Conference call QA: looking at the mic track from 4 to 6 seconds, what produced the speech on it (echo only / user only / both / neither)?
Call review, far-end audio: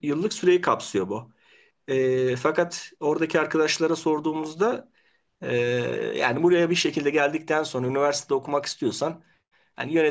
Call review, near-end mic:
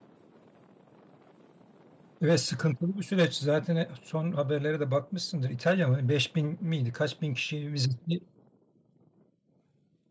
user only